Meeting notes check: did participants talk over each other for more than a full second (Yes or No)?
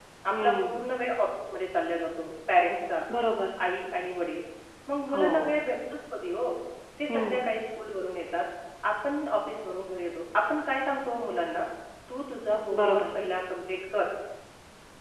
No